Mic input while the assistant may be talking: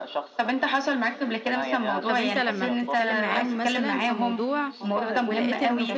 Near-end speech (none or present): present